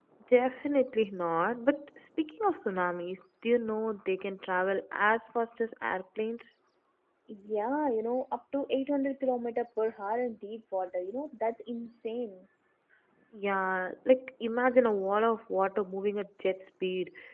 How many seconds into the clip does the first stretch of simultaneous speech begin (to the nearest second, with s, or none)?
none